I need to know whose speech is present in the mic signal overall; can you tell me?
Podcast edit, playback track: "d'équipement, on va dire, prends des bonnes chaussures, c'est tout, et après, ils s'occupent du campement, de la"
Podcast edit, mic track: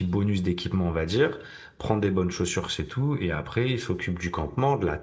echo only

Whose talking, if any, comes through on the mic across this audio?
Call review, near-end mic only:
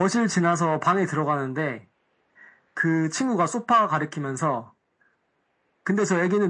echo only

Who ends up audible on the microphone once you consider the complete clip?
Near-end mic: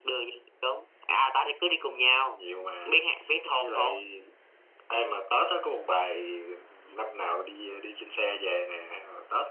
echo only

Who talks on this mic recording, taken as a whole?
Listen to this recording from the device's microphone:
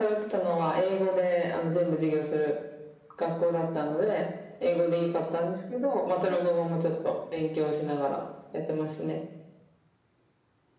echo only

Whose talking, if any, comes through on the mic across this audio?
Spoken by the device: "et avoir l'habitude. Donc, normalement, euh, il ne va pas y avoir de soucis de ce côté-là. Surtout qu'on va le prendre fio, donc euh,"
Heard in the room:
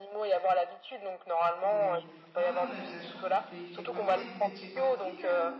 both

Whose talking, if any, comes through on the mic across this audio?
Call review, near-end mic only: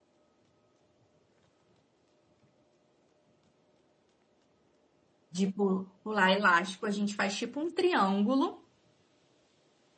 user only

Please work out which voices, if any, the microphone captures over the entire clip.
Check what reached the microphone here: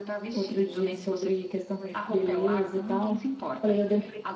both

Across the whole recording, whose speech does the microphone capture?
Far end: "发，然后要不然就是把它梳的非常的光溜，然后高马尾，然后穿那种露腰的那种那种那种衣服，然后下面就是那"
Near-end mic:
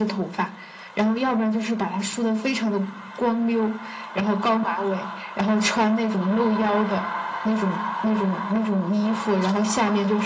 echo only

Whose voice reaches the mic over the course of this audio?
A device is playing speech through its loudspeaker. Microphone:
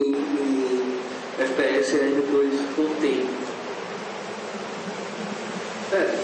echo only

